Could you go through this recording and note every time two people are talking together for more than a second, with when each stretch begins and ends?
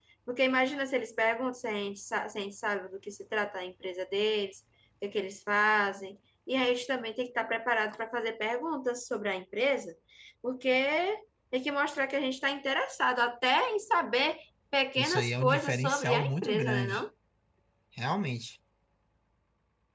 15.0-17.0

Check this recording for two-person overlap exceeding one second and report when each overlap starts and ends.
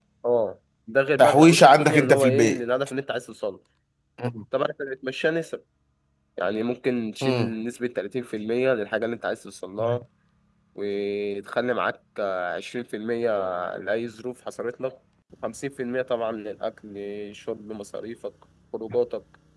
1.2-2.6

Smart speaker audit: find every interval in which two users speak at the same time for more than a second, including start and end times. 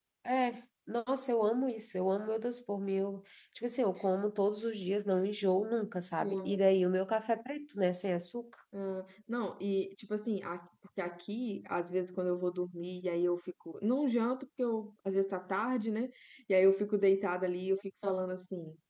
none

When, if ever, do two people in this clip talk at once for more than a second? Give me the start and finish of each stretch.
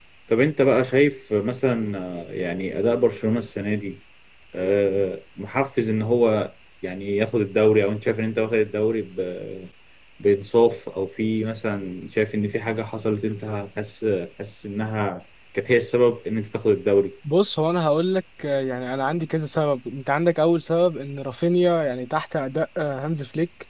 none

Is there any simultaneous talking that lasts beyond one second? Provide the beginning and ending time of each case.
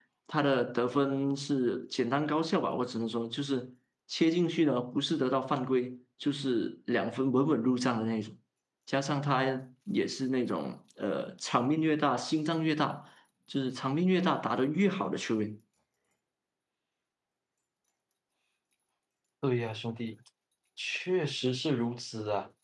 none

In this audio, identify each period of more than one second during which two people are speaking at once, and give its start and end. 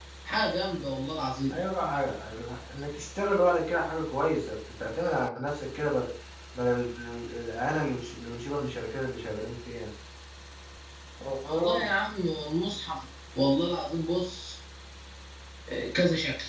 none

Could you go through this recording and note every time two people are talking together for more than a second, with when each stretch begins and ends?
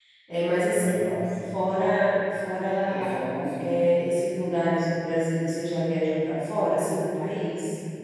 none

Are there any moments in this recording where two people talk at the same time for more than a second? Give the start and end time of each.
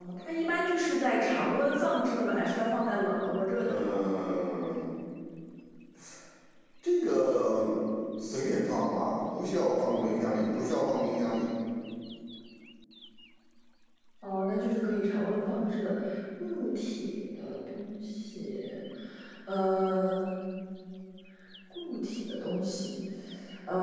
none

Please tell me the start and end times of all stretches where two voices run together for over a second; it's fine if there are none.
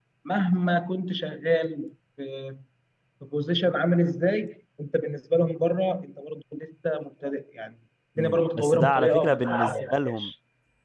8.2-10.3

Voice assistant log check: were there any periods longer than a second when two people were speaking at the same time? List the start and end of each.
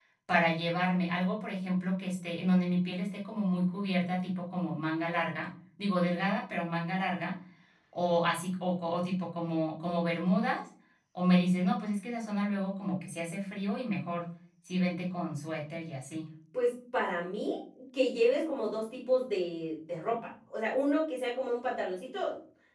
none

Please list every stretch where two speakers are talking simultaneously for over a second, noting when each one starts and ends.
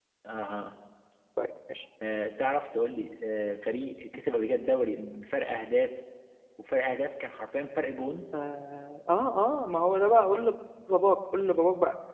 none

